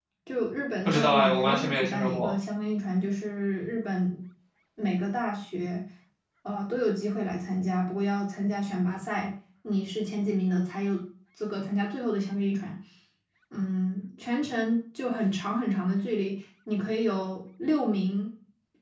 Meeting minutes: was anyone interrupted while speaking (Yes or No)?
Yes